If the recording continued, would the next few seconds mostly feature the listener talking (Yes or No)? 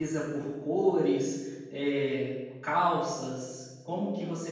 No